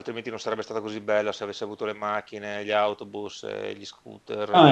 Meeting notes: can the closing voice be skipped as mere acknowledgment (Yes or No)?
No